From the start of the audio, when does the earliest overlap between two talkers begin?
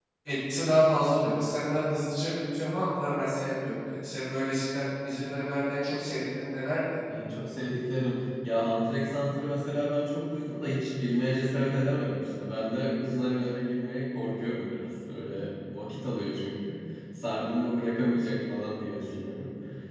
none

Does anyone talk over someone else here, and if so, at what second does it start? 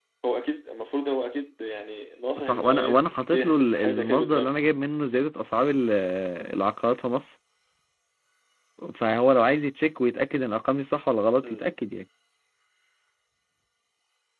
2 s

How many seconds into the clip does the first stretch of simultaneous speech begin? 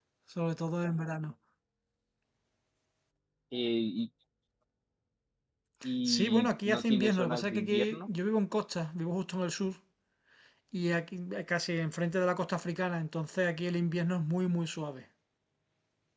6 s

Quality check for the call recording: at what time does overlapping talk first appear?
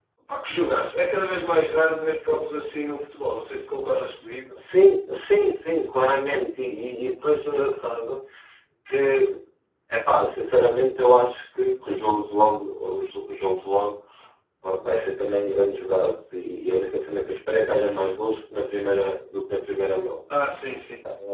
none

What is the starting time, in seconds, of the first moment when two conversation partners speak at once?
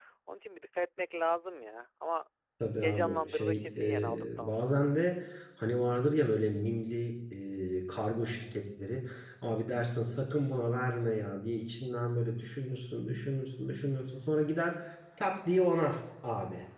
3 s

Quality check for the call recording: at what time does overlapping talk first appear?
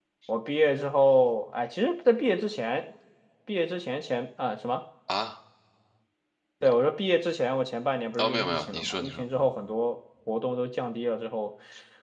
8 s

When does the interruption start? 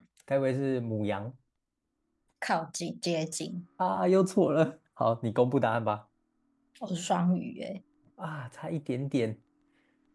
none

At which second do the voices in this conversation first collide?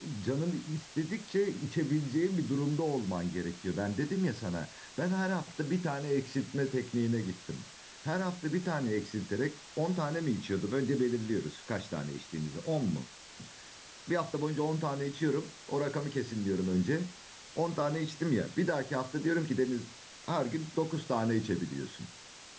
none

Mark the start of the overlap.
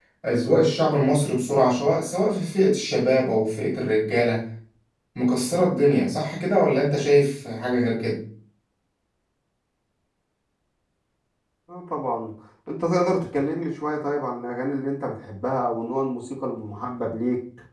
none

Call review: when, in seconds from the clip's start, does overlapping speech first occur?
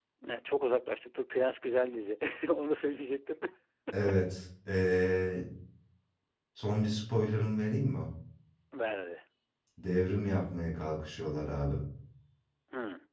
none

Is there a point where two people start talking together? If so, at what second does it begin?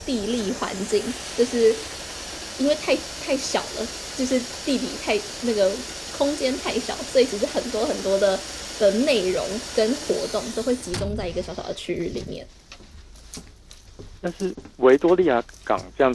none

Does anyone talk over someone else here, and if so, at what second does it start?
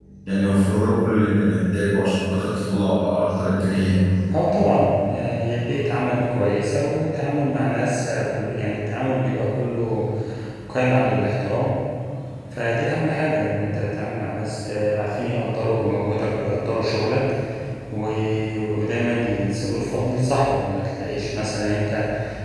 none

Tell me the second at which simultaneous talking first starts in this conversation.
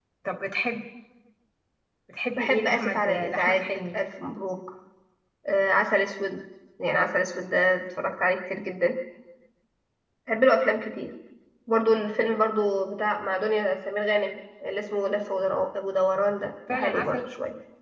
2 s

